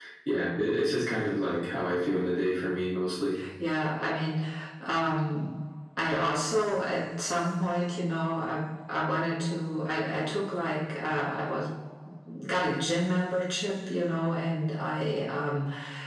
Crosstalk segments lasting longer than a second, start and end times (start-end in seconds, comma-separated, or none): none